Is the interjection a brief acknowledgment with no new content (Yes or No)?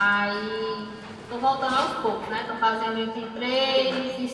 Yes